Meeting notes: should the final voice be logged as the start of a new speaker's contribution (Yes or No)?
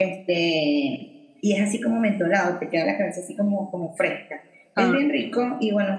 No